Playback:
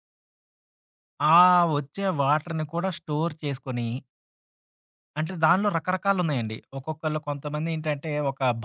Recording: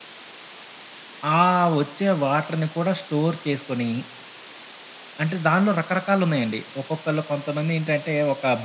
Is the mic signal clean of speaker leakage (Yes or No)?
No